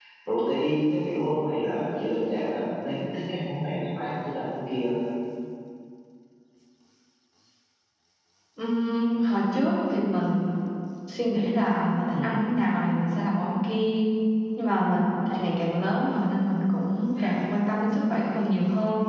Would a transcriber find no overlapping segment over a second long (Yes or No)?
Yes